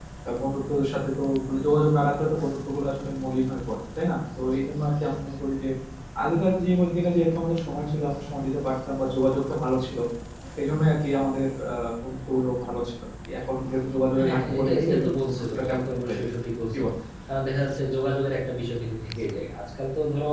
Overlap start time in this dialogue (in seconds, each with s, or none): 14.1 s